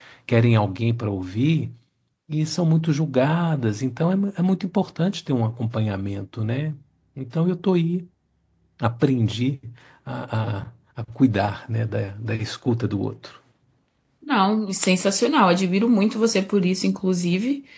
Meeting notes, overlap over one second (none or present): none